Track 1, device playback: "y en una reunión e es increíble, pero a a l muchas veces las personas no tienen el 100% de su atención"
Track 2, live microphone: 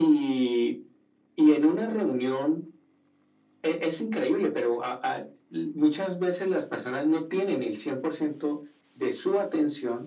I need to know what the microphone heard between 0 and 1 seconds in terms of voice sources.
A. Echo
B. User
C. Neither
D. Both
A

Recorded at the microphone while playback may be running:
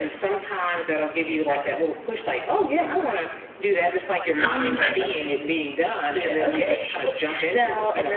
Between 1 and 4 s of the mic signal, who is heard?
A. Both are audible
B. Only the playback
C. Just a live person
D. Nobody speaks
B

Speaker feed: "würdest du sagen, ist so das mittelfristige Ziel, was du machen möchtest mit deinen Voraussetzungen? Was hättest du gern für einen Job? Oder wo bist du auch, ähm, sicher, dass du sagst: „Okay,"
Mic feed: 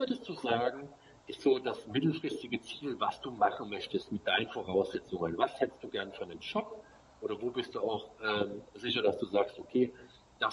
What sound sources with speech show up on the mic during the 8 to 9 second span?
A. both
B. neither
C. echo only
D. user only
C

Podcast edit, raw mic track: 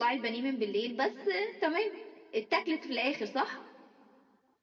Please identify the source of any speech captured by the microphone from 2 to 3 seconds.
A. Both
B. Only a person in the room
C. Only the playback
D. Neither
C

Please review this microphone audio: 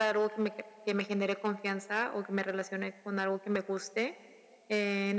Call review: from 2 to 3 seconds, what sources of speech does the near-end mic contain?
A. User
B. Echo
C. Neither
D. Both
B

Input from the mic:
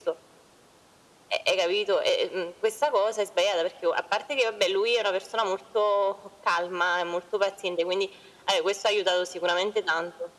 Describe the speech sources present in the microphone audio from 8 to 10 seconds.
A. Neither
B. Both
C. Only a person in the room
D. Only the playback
D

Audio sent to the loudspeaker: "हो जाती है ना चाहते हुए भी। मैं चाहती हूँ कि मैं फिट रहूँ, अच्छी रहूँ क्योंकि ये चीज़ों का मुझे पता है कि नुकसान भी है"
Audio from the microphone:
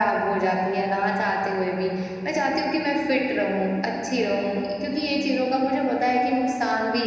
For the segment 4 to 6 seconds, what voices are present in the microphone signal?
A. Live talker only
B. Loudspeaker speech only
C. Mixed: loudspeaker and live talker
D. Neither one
B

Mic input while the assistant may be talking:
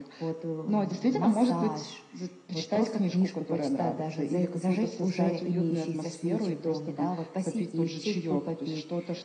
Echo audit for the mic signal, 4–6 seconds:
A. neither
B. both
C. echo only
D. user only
C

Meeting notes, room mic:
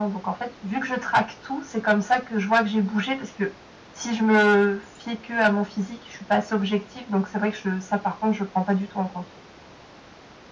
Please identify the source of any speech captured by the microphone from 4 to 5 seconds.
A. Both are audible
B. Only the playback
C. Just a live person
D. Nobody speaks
B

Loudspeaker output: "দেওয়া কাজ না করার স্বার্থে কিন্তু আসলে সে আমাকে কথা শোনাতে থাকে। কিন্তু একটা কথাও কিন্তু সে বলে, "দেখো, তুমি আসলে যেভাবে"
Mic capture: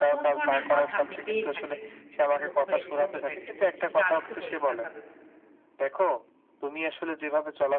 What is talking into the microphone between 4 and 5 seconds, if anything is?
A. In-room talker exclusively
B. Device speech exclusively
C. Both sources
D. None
C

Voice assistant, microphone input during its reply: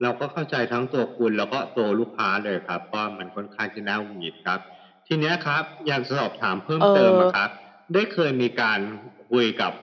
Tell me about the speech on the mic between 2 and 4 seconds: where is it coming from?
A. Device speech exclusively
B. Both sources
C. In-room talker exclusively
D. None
A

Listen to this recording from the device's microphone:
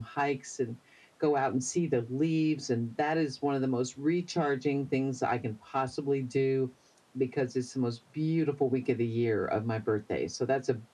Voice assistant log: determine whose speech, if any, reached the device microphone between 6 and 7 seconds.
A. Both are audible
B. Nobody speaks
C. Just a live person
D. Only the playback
D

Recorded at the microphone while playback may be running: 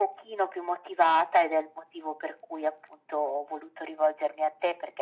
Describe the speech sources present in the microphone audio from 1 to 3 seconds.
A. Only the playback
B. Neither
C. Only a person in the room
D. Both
A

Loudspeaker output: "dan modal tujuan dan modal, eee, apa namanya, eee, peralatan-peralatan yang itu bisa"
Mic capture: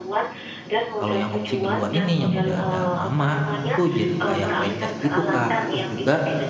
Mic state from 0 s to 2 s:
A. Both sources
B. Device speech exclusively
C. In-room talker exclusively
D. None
A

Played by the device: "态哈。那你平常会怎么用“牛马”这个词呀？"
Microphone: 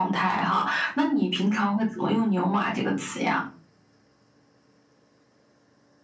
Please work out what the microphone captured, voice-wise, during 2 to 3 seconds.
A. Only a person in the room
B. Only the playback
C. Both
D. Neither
B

